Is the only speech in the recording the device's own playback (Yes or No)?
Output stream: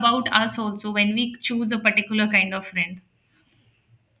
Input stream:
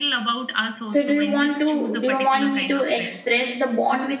No